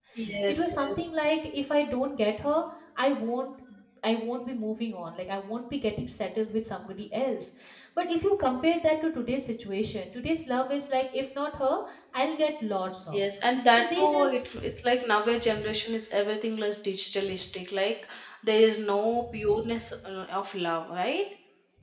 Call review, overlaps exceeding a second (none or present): present